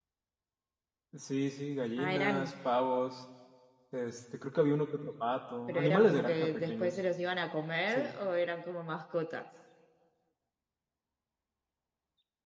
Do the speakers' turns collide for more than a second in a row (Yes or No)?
Yes